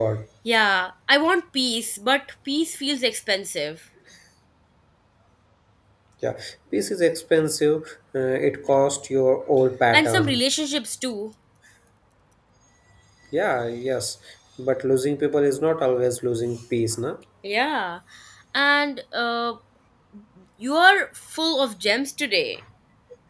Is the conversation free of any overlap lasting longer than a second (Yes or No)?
Yes